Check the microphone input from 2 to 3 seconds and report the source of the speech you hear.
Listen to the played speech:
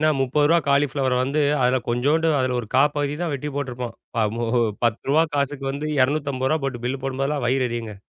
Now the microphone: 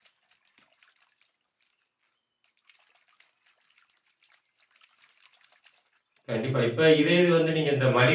neither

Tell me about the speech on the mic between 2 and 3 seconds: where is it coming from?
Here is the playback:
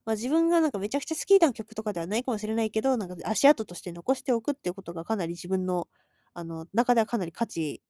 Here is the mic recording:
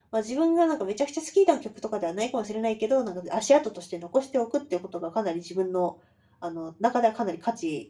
echo only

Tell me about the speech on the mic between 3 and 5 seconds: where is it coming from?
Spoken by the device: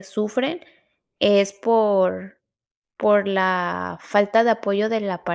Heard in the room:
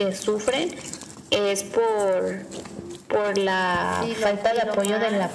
both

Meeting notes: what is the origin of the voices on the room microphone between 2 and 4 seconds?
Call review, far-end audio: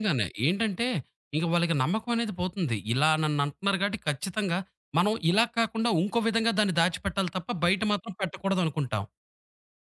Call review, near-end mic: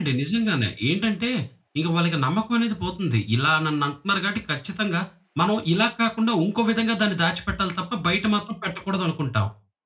echo only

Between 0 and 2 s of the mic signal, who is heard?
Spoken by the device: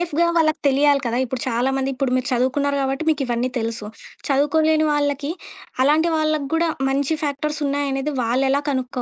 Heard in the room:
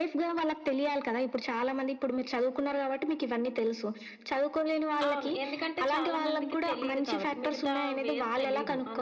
echo only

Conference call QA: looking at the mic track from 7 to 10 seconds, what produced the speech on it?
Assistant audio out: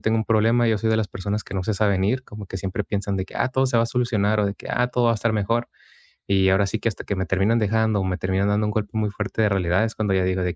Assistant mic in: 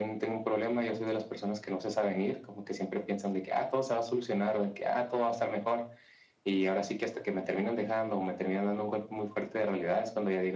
echo only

